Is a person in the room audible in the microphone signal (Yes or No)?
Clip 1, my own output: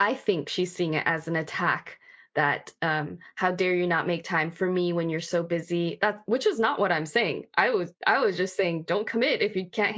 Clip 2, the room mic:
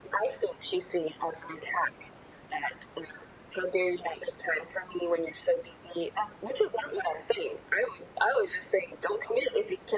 No